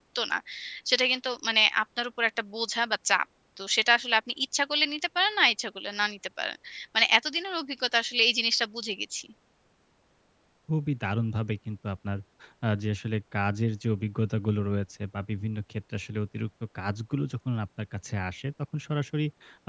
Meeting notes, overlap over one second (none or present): none